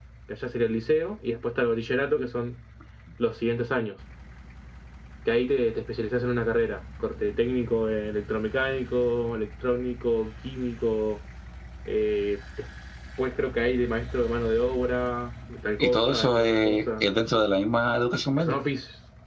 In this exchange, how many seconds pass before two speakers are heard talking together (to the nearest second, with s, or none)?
16 s